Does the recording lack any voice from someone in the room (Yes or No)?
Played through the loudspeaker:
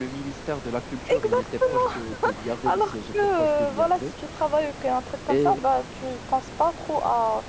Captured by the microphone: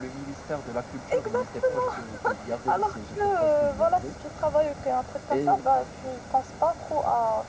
Yes